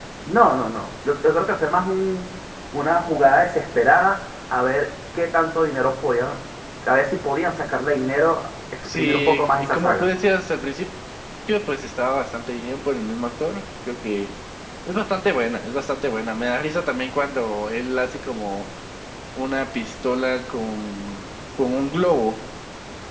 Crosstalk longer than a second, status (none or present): present